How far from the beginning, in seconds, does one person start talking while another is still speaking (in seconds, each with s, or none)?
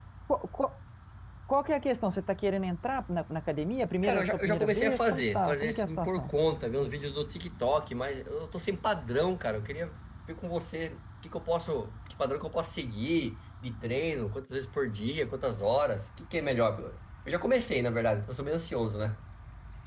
4.0 s